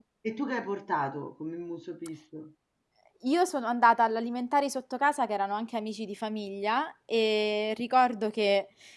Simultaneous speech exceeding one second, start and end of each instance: none

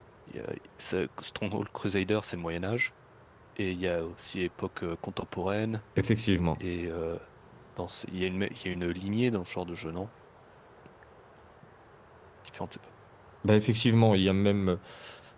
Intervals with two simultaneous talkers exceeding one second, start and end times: none

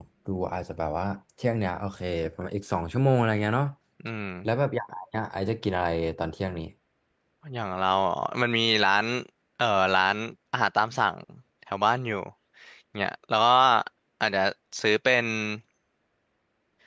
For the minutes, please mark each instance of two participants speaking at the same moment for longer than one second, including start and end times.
none

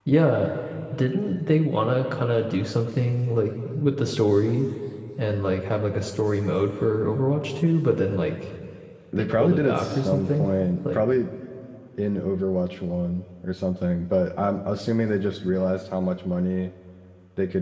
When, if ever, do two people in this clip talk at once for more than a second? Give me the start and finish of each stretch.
9.2-10.5

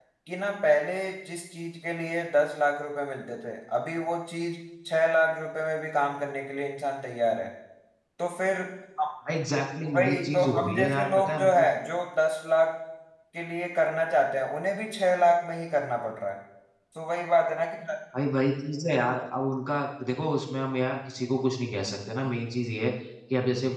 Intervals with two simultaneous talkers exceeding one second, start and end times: 9.8-11.7

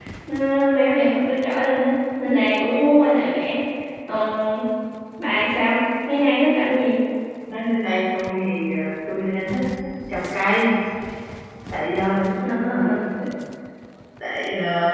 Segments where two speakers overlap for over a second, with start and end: none

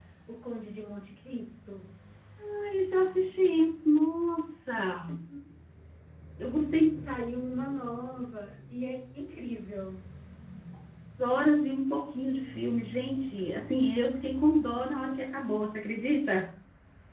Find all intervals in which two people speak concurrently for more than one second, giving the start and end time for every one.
none

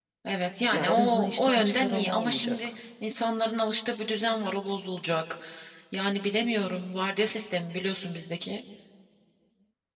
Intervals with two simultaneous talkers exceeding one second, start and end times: 0.7-2.8

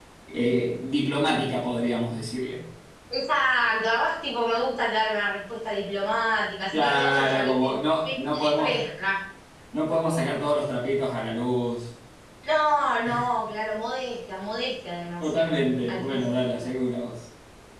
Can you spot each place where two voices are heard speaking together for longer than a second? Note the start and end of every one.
6.7-8.8, 15.2-16.7

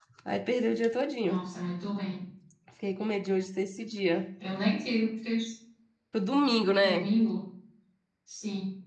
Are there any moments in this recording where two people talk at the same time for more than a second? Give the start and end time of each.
none

